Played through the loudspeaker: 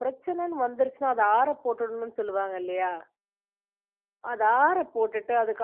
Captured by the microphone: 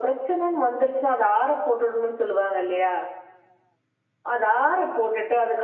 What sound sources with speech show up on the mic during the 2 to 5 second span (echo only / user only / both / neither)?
echo only